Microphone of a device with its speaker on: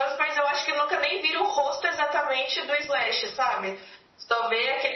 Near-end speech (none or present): none